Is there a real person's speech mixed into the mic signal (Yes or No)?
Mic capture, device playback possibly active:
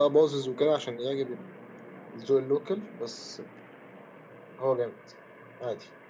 No